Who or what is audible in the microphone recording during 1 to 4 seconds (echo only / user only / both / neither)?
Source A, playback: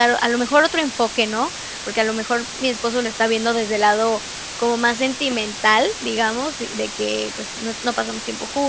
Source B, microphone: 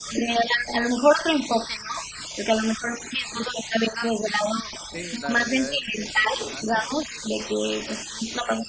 echo only